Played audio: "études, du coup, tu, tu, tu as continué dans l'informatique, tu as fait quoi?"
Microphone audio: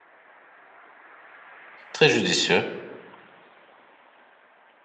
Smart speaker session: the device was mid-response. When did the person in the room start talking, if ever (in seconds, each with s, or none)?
1.9 s